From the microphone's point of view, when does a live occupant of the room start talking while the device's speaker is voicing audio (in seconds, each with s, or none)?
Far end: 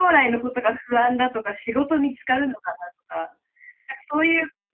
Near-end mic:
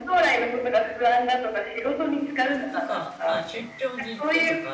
2.7 s